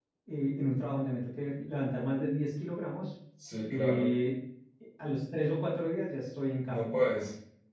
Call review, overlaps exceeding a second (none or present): none